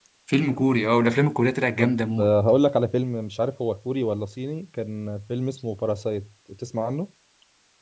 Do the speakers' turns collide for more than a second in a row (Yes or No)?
No